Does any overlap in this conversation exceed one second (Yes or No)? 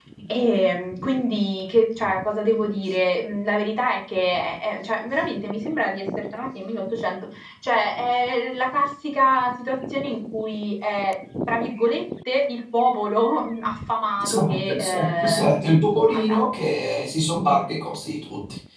Yes